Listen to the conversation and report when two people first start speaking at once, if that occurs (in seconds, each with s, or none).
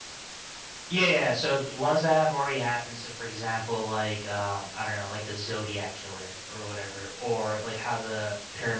none